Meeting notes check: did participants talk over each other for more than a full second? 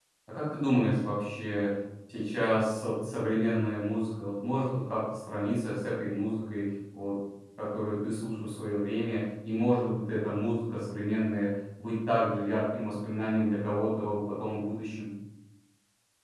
No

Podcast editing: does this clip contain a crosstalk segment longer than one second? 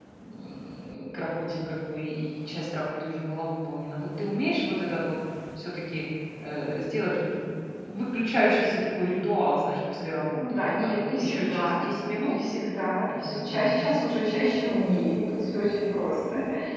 Yes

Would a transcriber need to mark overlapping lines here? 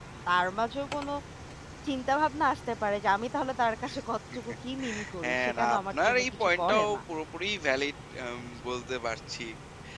Yes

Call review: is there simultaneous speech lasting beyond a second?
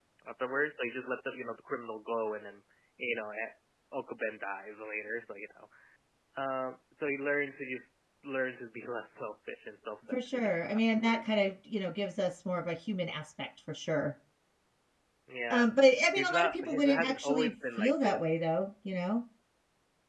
Yes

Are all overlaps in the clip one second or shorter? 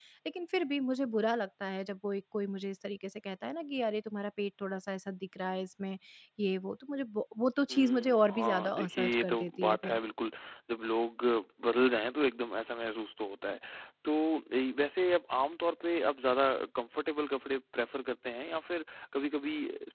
No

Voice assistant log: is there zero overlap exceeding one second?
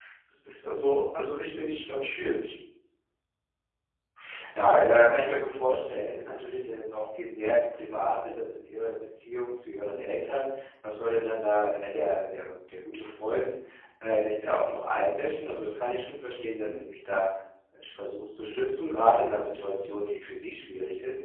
Yes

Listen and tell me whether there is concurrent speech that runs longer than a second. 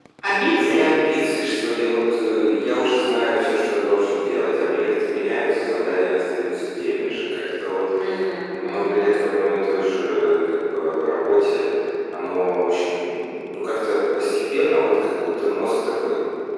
No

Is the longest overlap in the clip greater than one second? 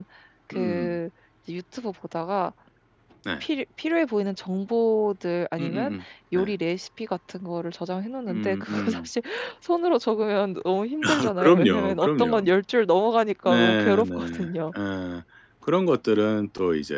Yes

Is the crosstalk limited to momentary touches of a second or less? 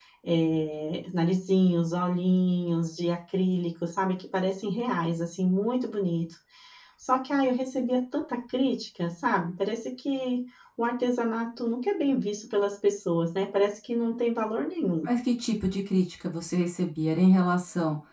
Yes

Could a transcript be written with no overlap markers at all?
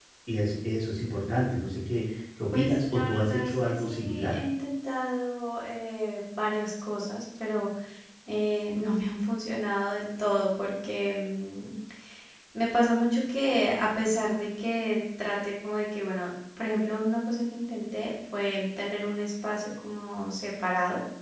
No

